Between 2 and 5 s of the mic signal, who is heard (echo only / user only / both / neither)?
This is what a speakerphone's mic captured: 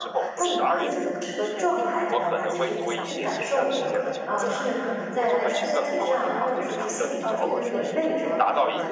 both